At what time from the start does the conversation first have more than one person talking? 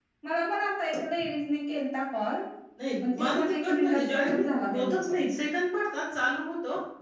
3.0 s

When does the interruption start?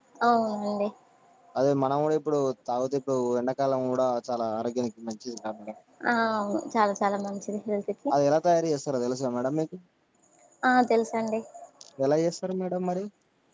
none

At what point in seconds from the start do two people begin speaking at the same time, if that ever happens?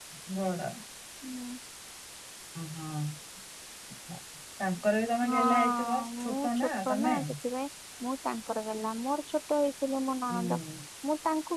5.3 s

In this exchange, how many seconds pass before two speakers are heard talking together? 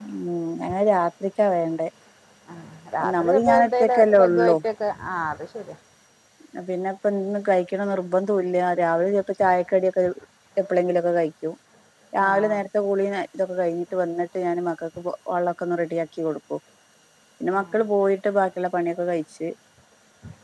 3.0 s

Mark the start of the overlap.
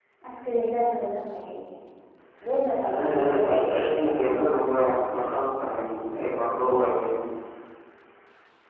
2.8 s

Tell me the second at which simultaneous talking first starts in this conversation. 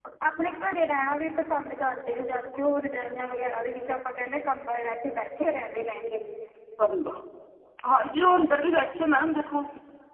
none

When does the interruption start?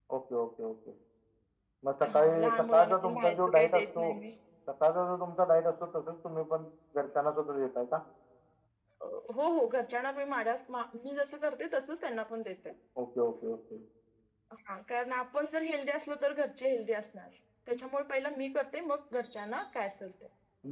2.1 s

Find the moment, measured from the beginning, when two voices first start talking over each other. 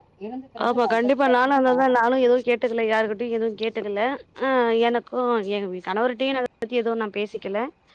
0.7 s

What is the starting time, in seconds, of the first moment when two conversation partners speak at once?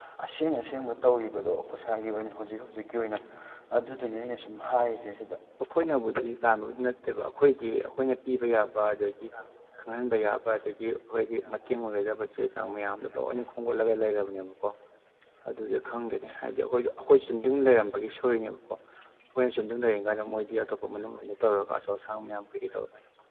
none

